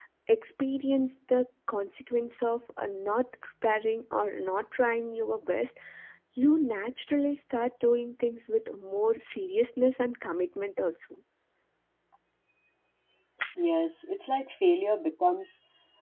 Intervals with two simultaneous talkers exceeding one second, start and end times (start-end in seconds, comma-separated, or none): none